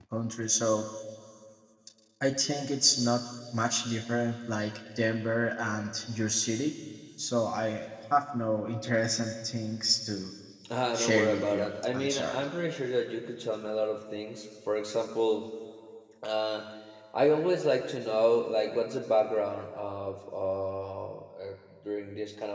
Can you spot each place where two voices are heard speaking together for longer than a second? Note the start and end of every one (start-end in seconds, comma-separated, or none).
10.9-12.4